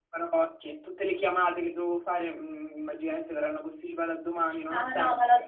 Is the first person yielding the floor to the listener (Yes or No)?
Yes